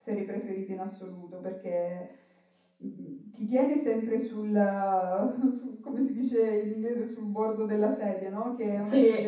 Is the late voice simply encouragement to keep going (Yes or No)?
Yes